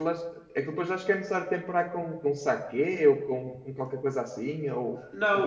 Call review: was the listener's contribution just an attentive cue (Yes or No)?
No